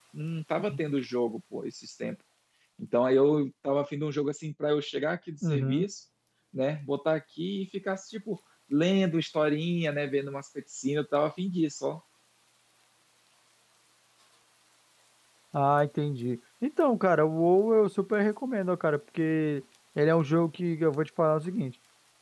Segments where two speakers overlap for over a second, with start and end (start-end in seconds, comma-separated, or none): none